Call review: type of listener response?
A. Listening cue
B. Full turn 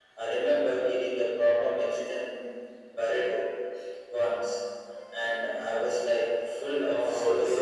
B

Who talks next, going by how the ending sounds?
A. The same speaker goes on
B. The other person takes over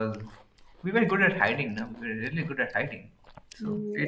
B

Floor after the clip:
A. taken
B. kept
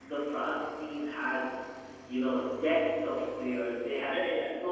B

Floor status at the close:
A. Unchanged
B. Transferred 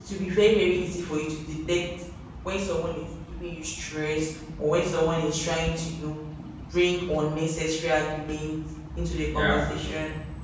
A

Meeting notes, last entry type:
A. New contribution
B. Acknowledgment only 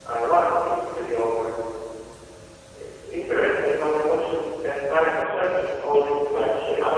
A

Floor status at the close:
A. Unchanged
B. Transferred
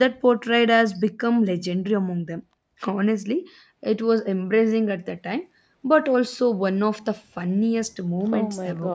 B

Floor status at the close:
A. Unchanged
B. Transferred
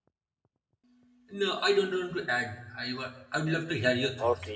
B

